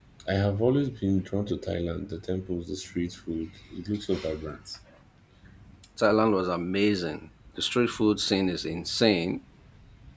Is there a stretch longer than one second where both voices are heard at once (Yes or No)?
No